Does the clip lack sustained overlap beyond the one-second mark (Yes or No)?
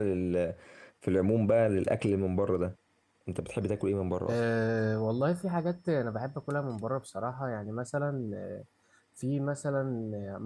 Yes